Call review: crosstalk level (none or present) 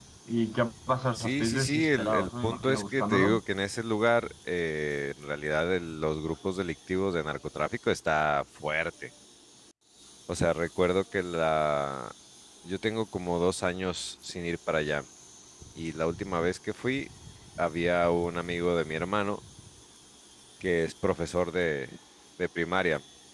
present